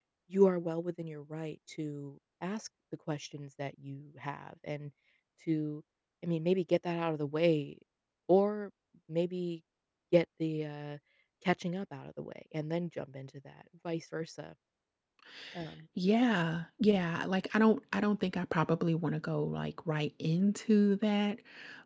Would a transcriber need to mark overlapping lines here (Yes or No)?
No